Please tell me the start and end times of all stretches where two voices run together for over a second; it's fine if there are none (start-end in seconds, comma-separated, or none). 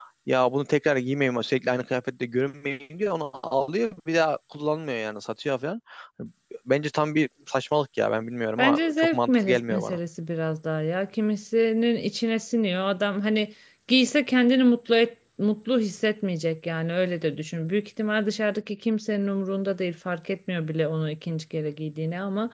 8.6-10.0